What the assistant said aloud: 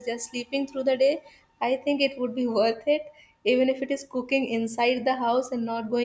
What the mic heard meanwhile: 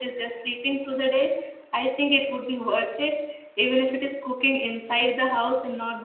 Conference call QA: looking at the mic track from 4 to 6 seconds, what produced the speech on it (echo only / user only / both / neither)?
echo only